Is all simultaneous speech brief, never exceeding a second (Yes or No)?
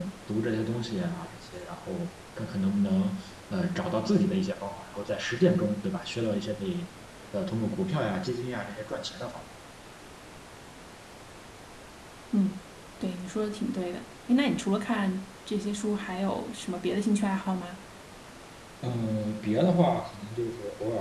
Yes